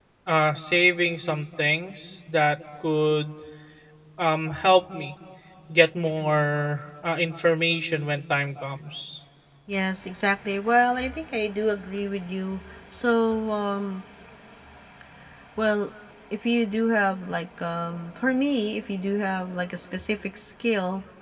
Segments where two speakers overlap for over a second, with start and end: none

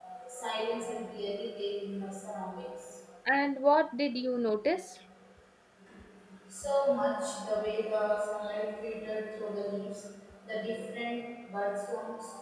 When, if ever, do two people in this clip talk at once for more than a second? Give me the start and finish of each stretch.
none

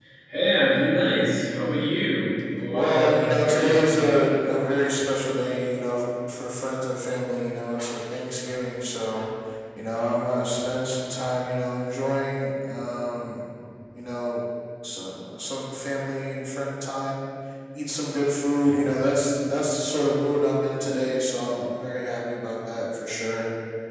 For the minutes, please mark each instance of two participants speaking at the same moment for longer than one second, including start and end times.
2.7-4.2

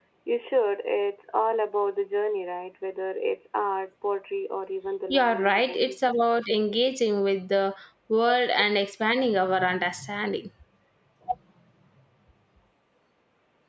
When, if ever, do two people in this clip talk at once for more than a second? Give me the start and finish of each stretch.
5.1-6.3

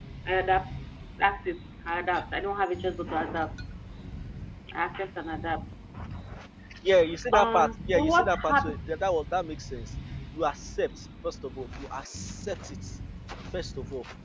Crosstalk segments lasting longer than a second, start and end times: 7.3-8.8

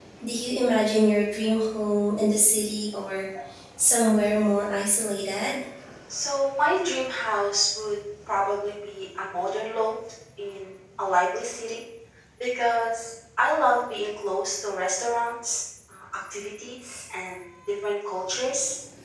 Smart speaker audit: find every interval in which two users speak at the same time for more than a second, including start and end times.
none

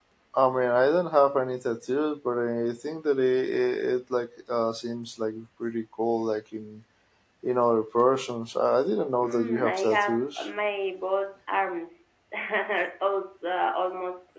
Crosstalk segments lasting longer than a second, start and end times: 9.2-10.5

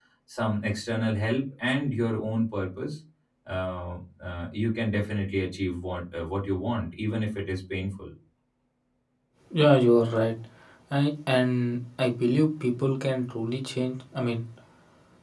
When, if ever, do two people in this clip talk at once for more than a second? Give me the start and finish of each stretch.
none

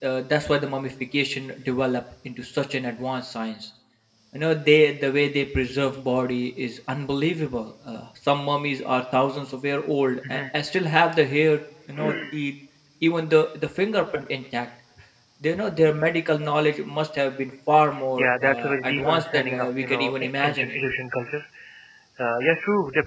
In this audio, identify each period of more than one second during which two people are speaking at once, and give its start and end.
18.2-20.8

